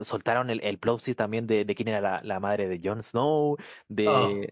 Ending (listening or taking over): listening